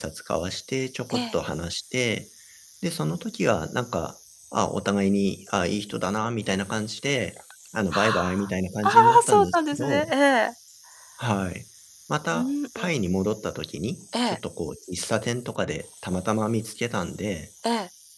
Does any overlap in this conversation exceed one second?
Yes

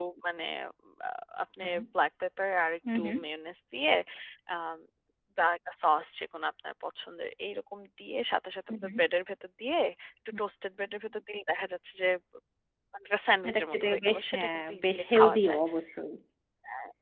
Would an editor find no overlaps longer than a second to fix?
No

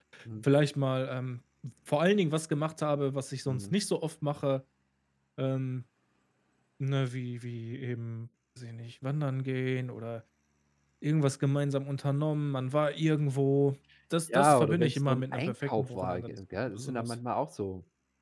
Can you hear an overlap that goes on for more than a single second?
Yes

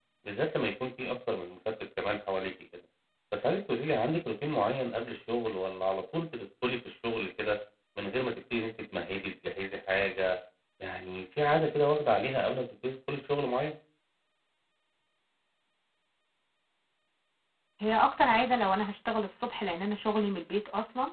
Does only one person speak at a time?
Yes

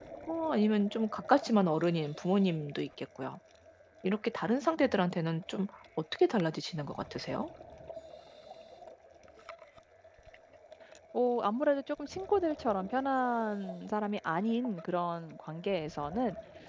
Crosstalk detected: No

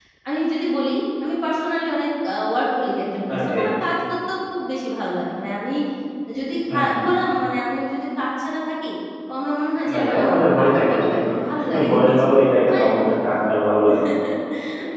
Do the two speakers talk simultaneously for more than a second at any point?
Yes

